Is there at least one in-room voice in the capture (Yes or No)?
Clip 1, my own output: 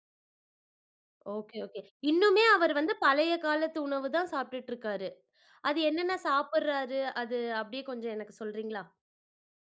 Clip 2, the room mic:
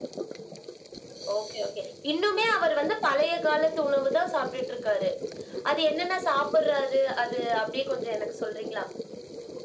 No